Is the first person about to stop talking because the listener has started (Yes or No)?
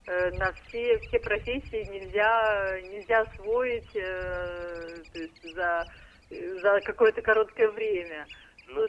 No